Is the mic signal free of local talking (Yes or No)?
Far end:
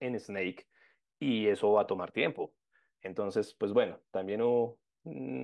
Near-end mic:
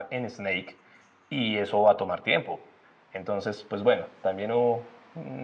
Yes